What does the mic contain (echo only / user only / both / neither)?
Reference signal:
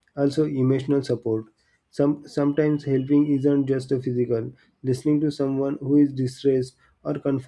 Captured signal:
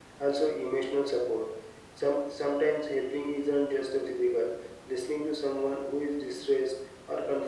echo only